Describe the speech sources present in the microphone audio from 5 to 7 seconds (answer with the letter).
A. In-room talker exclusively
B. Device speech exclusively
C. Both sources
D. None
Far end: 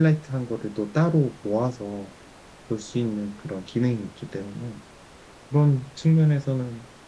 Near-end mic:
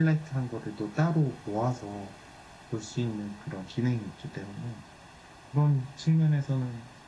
B